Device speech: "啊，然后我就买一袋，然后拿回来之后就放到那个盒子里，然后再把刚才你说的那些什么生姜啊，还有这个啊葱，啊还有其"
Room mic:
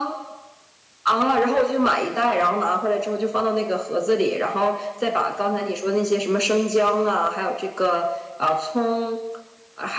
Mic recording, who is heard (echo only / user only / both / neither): echo only